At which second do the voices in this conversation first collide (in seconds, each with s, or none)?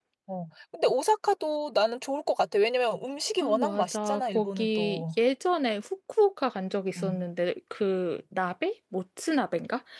3.4 s